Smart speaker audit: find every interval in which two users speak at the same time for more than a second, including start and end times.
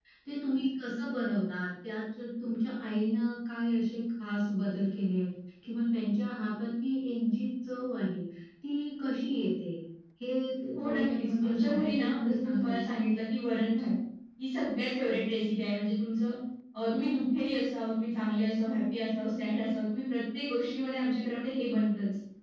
10.8-12.9

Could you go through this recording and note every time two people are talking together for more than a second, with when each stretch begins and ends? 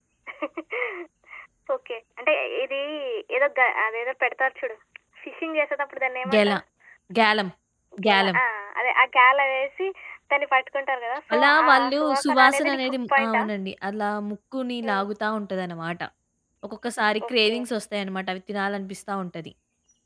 11.3-13.4

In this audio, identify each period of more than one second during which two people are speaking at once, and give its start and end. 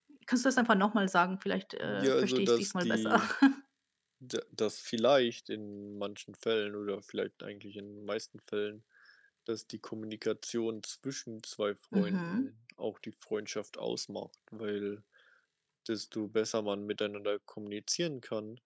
1.8-3.2

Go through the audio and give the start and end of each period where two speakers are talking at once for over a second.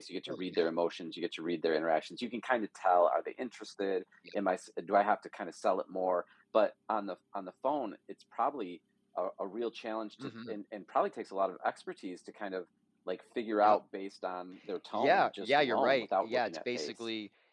14.9-16.9

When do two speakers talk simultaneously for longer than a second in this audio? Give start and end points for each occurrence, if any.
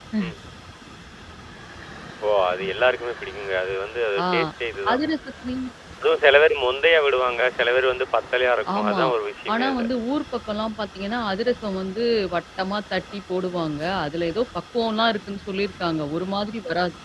none

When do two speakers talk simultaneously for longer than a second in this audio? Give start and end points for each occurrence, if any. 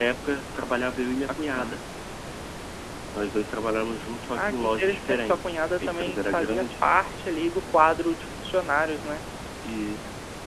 4.3-6.7

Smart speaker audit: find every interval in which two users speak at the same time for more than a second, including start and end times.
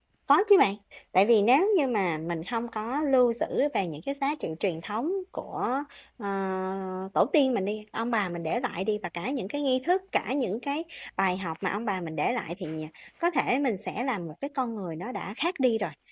none

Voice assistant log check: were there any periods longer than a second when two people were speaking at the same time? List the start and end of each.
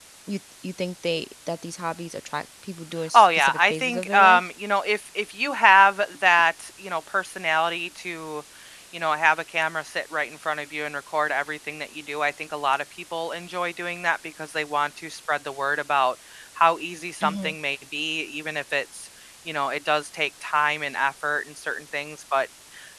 3.1-4.4

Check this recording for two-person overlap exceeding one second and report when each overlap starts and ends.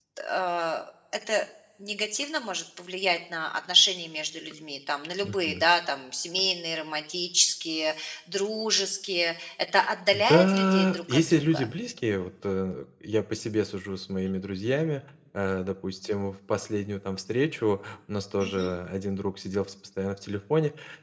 10.1-11.7

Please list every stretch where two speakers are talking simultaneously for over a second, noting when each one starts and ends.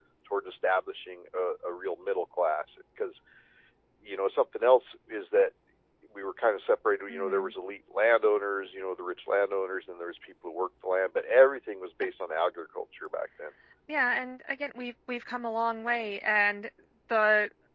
none

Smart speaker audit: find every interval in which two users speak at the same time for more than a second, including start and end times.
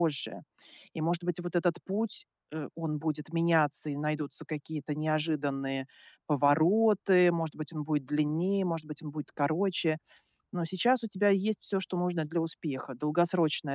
none

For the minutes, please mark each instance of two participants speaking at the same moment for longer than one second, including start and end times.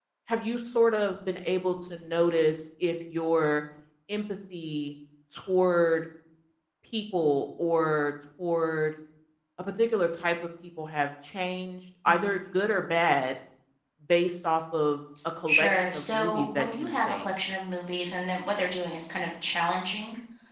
15.5-17.3

